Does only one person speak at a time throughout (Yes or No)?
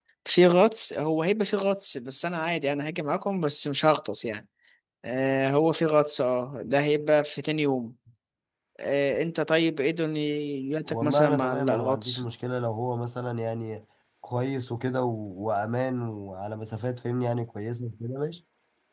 No